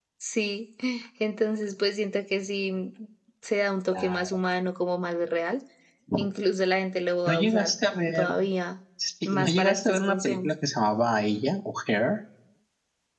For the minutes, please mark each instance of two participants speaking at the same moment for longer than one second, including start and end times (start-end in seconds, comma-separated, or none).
9.2-10.5